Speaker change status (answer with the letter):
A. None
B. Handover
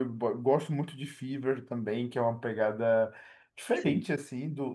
A